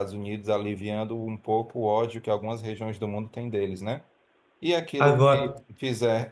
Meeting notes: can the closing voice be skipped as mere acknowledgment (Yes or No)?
Yes